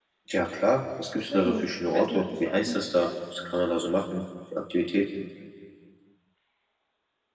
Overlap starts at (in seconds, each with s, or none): 1.1 s